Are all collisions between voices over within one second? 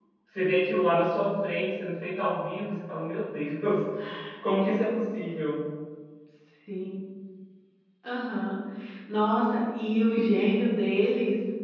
Yes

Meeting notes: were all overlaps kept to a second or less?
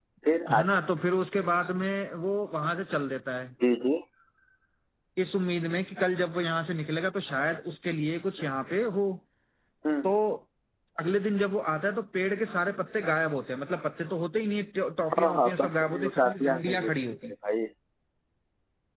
No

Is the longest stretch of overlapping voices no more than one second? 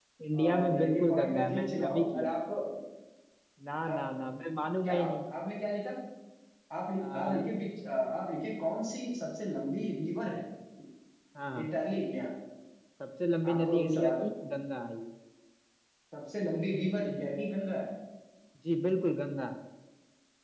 No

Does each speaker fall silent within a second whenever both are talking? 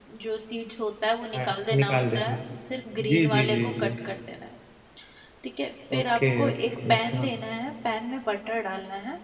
No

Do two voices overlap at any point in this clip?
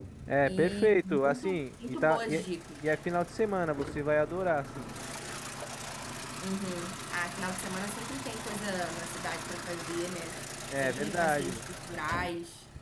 Yes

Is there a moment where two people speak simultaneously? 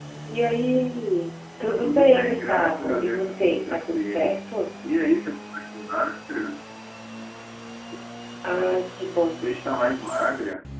Yes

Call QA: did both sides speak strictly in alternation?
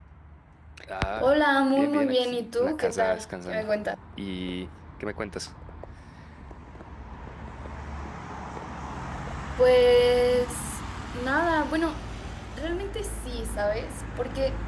No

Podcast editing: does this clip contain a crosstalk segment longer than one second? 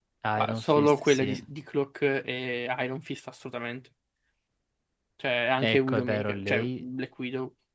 Yes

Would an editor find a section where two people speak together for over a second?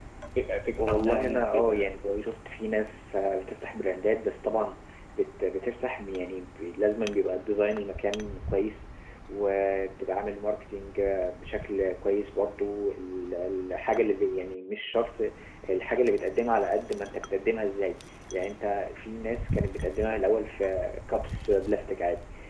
Yes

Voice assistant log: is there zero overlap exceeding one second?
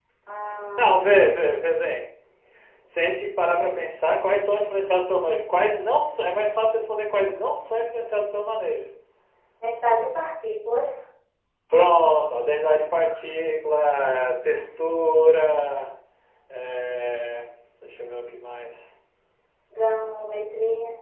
Yes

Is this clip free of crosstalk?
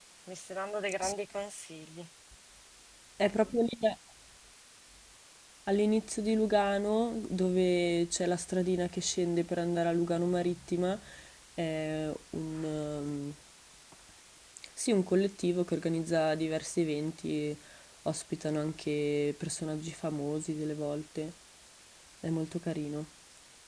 Yes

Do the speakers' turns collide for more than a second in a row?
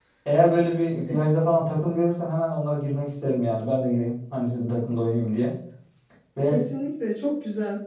No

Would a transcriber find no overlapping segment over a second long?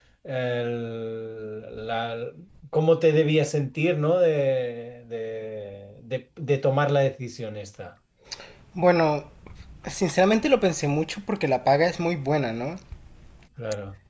Yes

